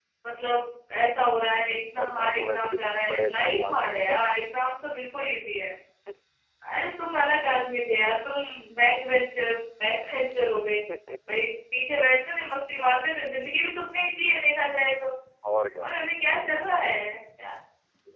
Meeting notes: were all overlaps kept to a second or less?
No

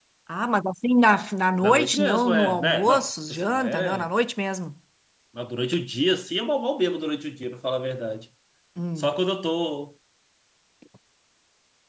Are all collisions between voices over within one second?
No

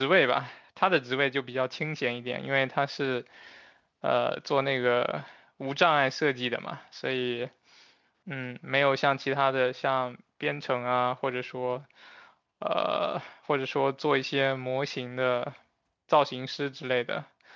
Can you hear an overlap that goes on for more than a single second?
No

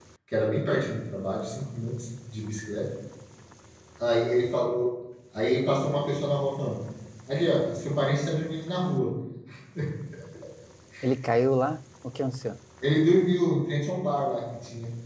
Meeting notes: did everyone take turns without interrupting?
Yes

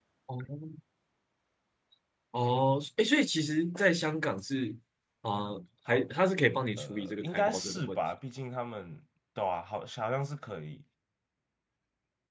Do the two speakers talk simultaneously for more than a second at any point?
Yes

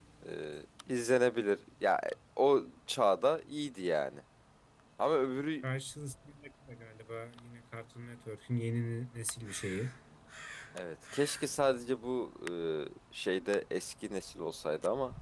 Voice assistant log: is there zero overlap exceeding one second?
Yes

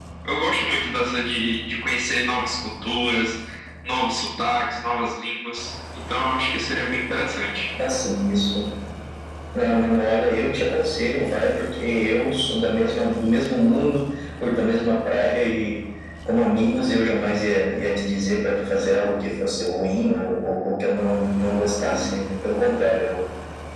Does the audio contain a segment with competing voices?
No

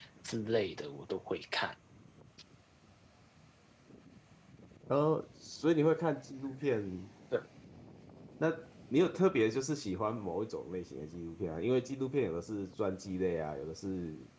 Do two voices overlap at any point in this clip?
No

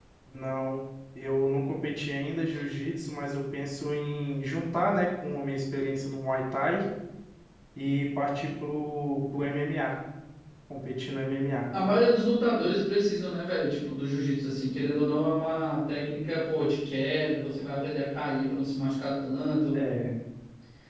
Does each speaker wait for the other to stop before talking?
Yes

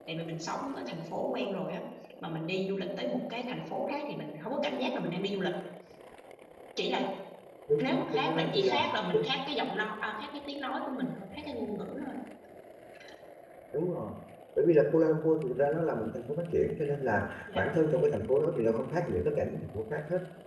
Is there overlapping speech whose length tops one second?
Yes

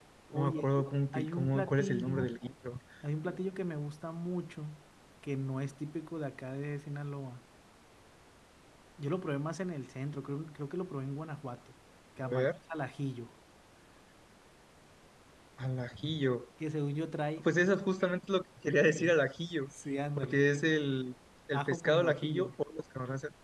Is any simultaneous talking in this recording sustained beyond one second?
Yes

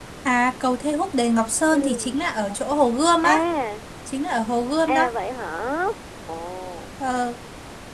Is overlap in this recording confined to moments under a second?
Yes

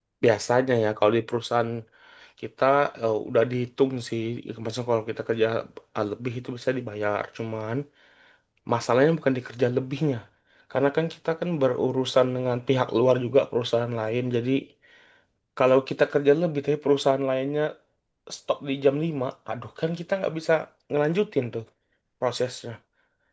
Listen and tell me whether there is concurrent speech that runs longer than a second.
No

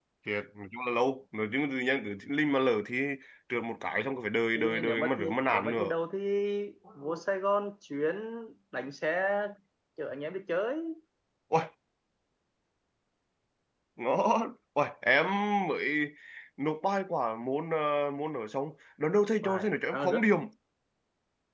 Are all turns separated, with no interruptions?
No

